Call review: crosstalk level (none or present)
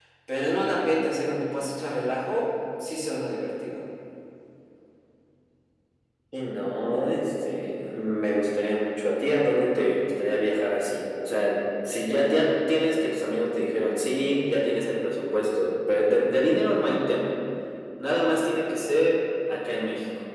none